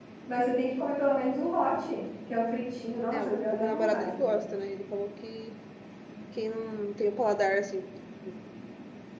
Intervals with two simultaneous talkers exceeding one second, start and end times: 3.1-4.4

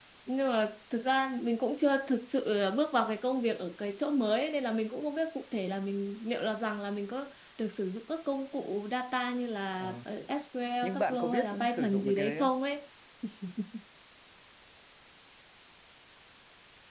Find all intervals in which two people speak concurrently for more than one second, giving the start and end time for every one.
10.8-12.5

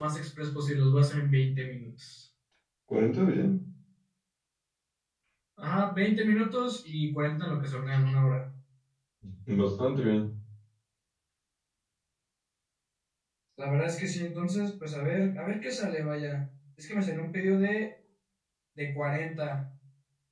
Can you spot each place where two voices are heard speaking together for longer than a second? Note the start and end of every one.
none

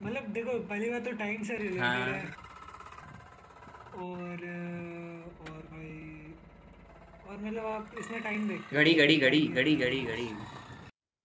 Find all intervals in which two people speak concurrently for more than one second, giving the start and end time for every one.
8.7-10.3

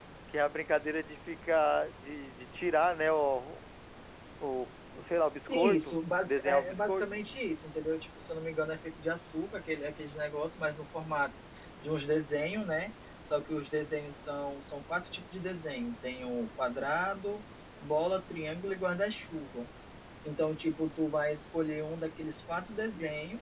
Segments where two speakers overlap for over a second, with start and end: 5.5-7.2

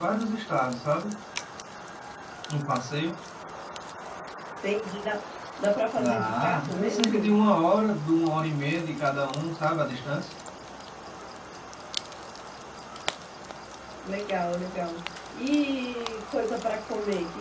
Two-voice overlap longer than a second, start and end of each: 6.0-7.3

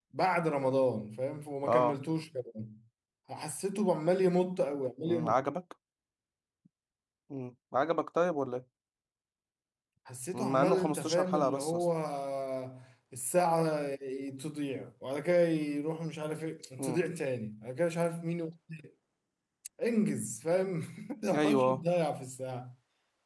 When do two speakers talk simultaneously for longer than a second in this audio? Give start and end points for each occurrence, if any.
10.3-11.9

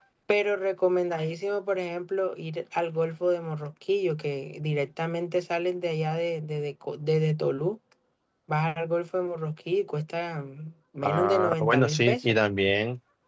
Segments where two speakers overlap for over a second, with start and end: 11.0-12.3

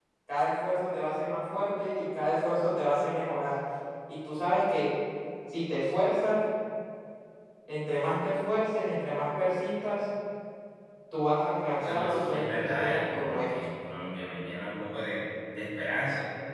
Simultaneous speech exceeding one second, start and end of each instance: 11.8-13.4

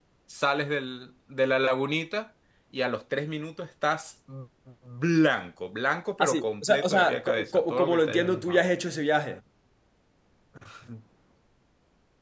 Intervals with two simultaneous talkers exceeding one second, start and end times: 6.2-8.7

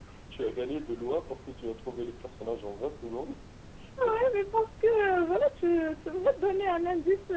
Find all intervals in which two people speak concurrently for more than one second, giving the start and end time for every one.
none

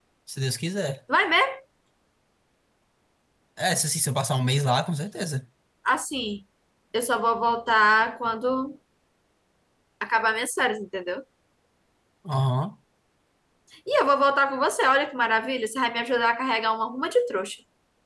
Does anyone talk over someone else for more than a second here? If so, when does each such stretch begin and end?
none

